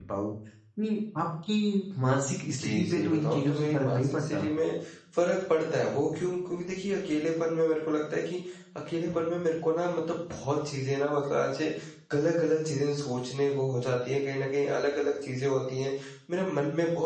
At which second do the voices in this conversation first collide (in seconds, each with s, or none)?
2.6 s